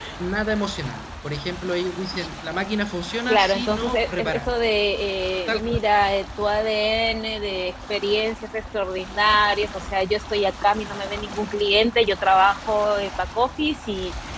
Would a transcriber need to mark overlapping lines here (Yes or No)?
Yes